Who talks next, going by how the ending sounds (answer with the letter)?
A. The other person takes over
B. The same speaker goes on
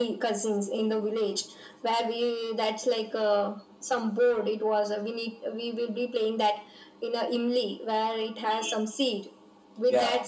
B